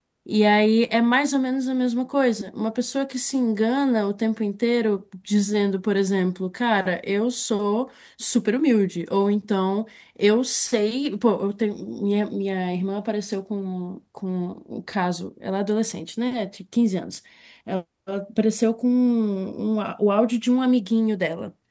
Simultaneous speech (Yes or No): No